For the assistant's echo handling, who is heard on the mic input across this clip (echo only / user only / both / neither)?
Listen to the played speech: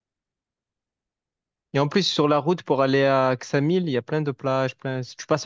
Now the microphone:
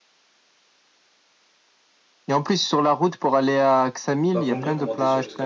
both